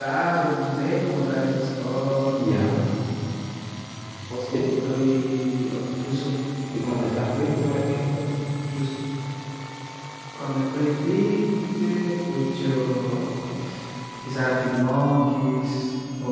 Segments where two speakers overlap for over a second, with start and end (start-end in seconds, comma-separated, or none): none